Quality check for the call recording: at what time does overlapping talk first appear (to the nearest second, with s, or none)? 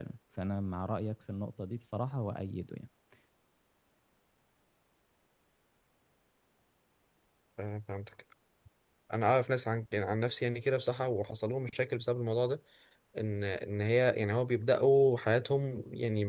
none